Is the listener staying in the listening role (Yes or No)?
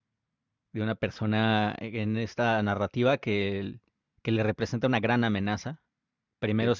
Yes